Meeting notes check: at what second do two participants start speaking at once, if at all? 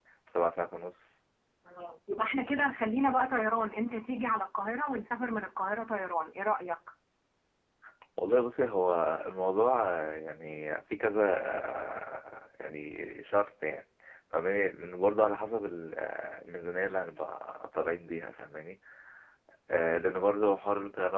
none

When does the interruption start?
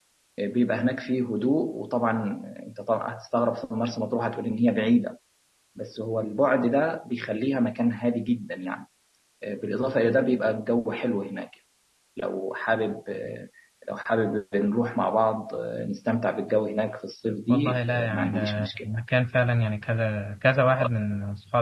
17.5 s

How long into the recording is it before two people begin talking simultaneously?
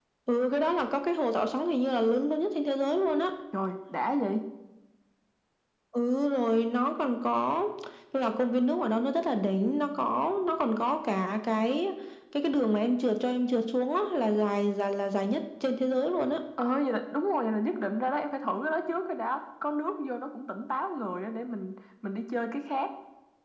none

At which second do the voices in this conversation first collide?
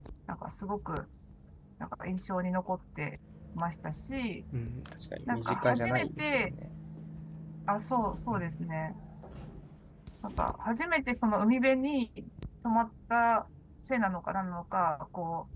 5.3 s

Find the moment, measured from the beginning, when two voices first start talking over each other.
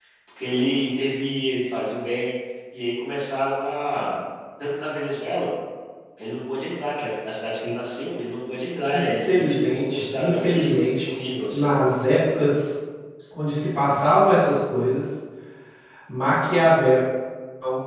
8.9 s

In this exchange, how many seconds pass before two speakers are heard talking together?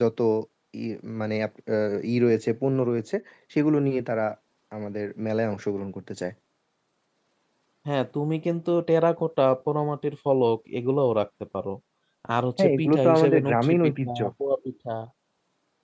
12.6 s

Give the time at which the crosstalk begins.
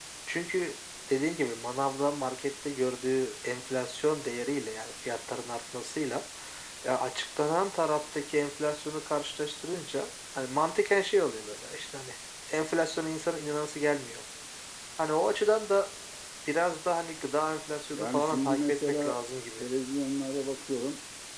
17.9 s

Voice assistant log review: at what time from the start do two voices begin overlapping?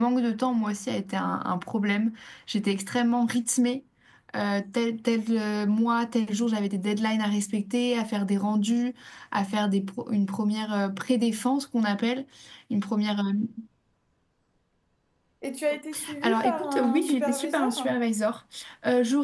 16.2 s

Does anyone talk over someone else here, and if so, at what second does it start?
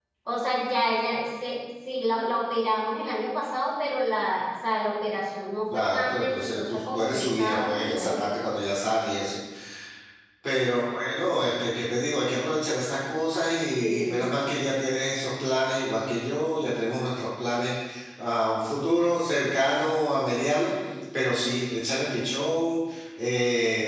5.7 s

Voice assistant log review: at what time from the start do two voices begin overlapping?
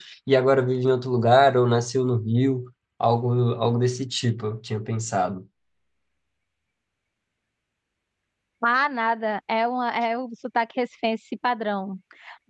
none

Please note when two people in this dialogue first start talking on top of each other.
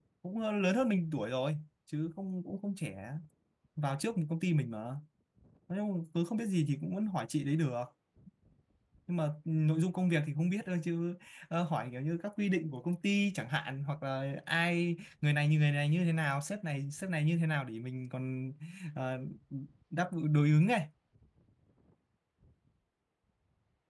none

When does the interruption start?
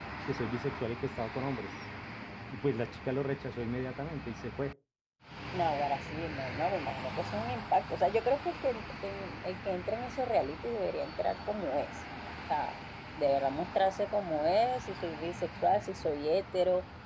none

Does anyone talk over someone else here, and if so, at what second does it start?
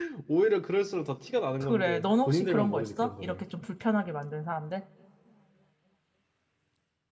1.6 s

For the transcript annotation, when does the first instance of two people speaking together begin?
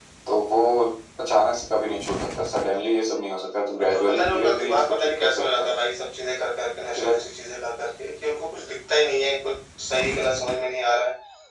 3.8 s

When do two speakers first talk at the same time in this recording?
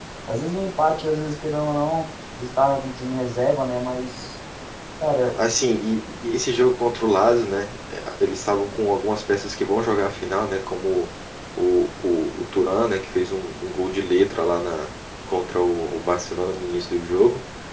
none

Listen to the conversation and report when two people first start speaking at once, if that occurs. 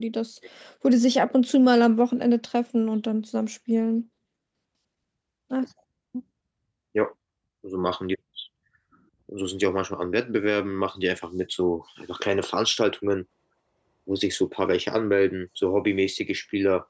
none

